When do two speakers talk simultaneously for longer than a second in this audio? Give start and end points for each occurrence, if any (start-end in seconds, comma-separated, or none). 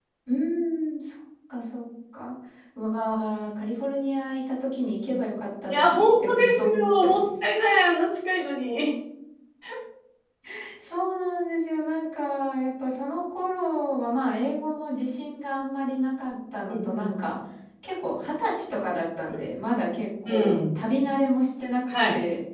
5.7-7.2